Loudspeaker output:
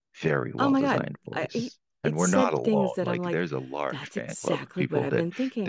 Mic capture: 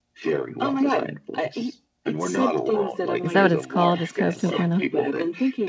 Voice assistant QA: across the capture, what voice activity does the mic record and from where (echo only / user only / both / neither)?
both